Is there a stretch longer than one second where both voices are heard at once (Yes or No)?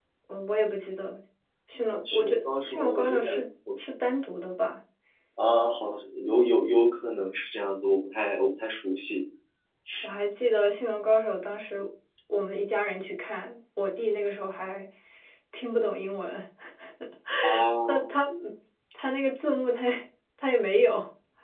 Yes